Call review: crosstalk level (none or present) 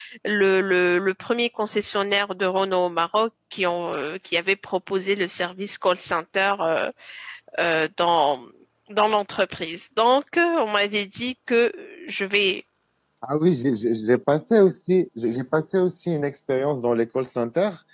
none